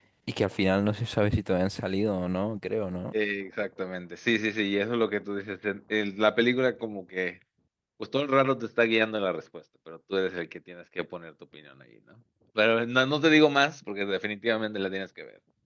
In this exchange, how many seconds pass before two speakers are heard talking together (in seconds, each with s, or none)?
none